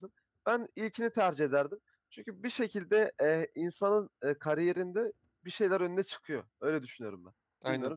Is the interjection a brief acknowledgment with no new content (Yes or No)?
No